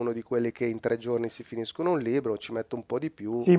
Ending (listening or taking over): taking over